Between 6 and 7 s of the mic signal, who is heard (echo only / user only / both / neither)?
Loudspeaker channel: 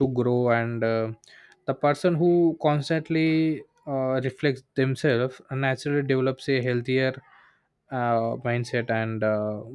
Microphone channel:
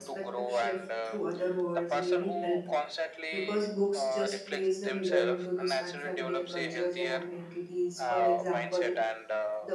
both